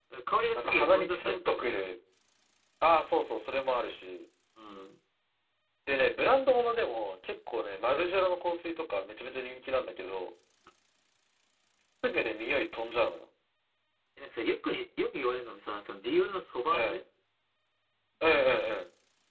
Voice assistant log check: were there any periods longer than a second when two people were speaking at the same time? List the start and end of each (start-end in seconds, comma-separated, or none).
0.6-1.8